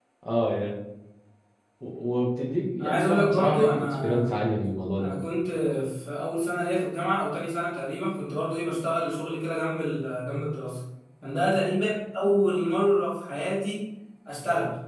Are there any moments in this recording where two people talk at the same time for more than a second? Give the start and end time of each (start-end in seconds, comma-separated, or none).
2.8-4.4